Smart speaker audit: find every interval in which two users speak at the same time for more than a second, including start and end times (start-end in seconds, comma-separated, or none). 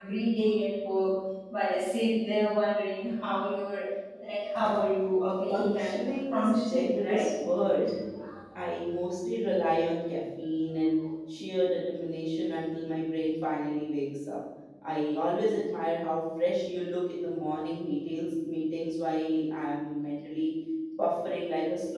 5.5-7.3